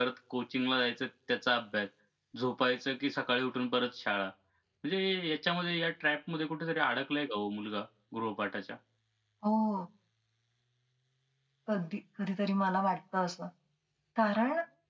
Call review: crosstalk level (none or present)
none